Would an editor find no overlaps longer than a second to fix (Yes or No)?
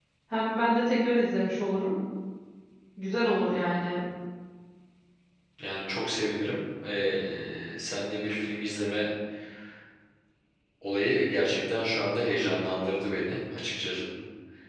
Yes